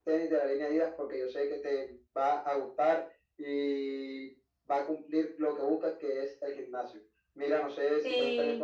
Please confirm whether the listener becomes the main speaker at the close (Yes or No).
No